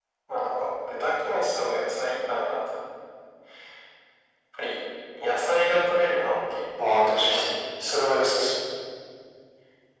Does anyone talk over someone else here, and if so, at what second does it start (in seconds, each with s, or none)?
6.8 s